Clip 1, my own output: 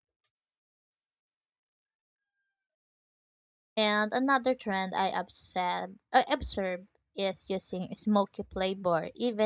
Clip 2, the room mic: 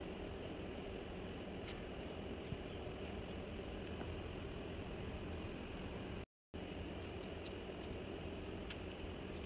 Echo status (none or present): none